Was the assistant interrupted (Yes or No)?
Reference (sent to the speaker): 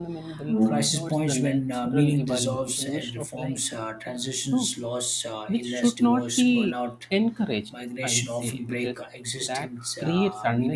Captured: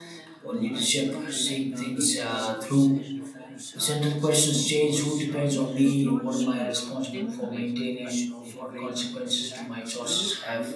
Yes